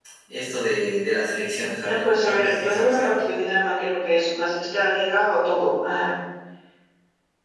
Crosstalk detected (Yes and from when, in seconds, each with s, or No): Yes, from 1.8 s